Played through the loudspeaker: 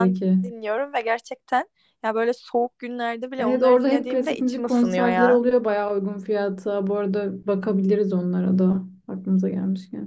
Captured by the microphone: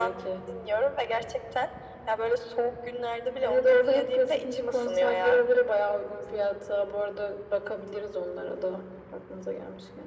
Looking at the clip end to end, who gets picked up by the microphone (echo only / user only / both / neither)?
echo only